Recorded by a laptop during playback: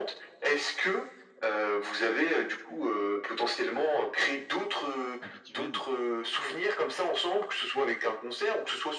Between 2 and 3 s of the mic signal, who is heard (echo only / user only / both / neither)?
echo only